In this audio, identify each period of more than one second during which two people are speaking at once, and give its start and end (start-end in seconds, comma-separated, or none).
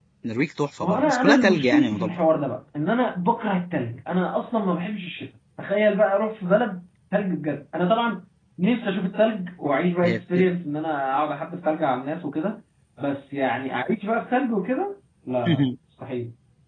0.8-2.2